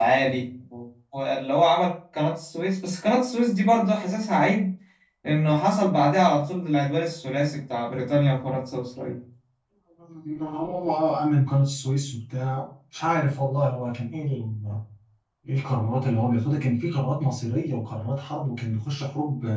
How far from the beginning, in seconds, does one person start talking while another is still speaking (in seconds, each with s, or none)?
none